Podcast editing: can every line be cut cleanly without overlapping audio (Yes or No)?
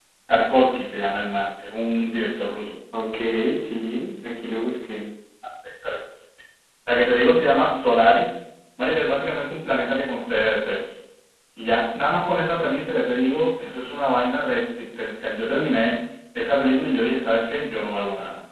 Yes